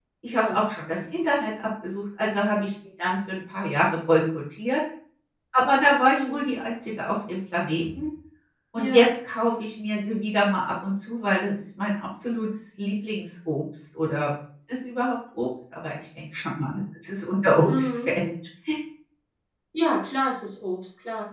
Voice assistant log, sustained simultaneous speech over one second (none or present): none